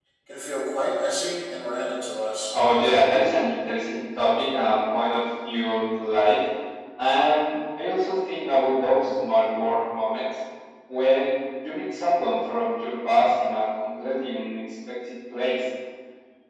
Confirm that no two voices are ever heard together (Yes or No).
Yes